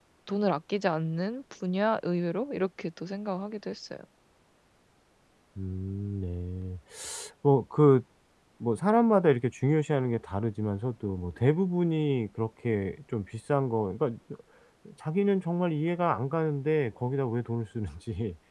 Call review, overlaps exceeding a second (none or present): none